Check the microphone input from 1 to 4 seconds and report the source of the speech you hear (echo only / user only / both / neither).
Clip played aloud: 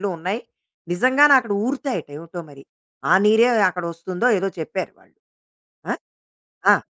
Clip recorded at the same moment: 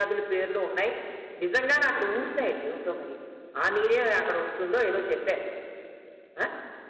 echo only